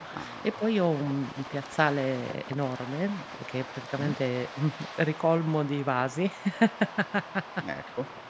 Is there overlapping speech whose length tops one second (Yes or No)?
No